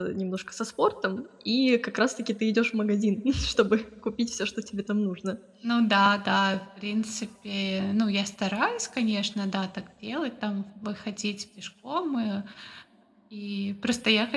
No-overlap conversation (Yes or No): Yes